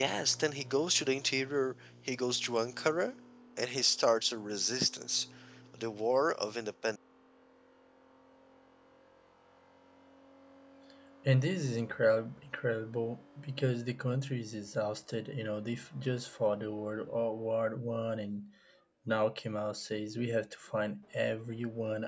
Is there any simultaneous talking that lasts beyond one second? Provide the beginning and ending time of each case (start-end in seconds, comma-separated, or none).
none